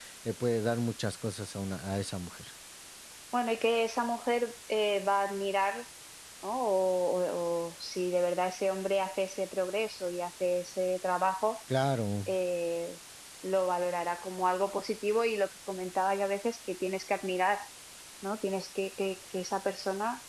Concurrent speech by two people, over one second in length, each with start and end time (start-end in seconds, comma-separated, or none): none